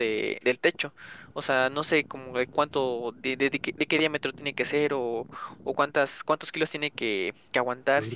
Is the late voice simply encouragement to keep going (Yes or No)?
Yes